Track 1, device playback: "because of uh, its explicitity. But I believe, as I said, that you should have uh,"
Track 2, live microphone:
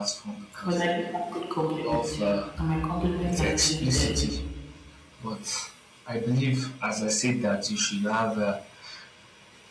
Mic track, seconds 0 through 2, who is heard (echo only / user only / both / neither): both